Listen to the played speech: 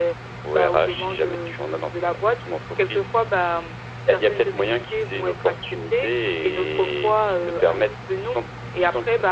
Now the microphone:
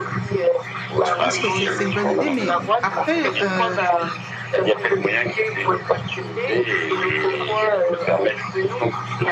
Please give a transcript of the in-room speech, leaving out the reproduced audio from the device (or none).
je pense que c'est c'est une bonne idée, mais après, heu,